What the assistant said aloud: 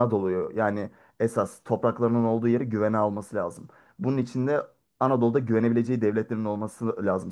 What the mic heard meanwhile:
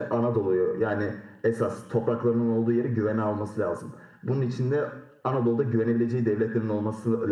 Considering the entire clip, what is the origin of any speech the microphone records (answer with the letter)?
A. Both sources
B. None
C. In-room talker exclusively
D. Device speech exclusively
D